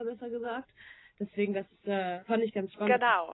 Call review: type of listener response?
listening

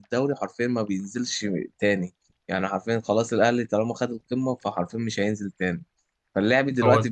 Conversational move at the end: listening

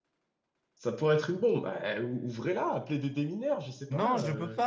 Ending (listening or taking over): taking over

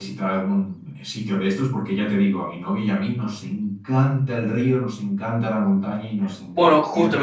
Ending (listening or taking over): taking over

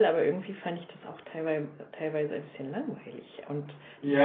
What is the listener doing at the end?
taking over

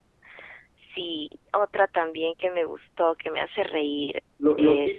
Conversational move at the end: taking over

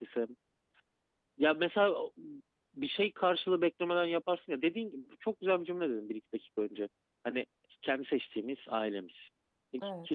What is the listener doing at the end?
listening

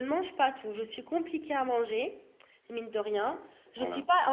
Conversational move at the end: listening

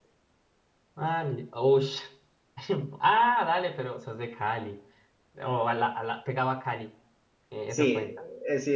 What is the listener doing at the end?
taking over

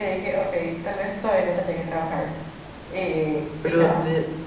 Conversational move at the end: taking over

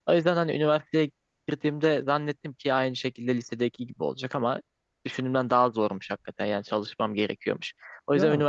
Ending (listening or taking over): listening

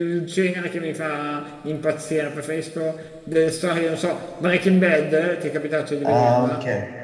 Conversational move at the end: taking over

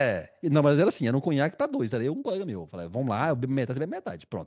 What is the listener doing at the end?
listening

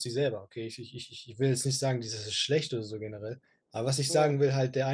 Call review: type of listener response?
listening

